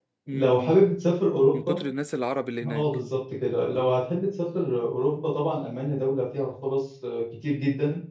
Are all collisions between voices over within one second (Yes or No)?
Yes